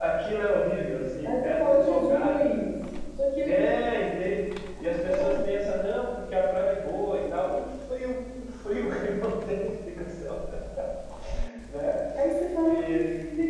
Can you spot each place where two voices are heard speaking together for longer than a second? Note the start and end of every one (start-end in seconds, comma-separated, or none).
1.2-2.5